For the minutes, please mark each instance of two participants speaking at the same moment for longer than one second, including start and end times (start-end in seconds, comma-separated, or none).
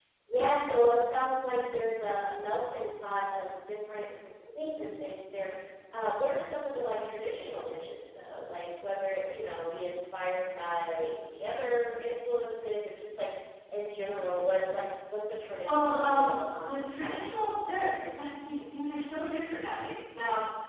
15.6-17.3